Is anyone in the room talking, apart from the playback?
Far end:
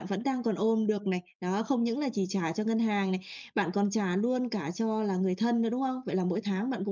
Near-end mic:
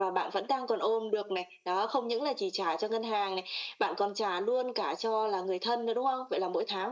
No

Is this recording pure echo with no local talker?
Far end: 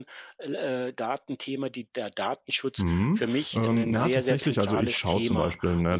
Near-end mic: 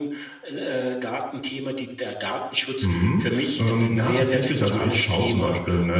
Yes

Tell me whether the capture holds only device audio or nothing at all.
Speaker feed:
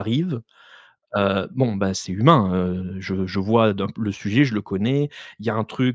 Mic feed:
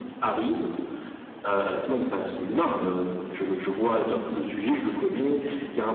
Yes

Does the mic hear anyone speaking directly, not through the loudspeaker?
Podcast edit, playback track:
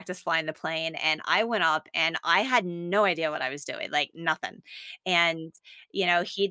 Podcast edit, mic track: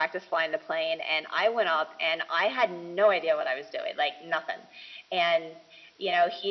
No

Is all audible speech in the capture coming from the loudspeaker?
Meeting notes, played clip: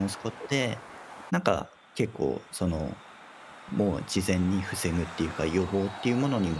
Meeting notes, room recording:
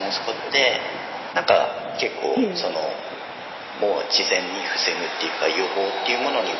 No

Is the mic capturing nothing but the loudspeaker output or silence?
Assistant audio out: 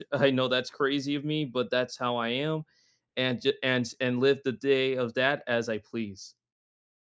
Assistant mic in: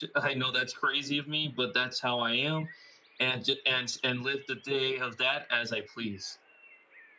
Yes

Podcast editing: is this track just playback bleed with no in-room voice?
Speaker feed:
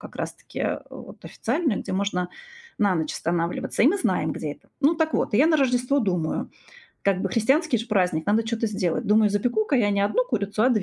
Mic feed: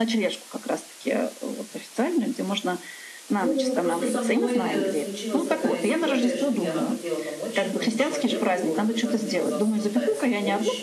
No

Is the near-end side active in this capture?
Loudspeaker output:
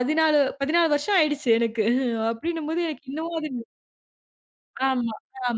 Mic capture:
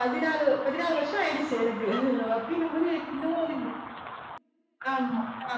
No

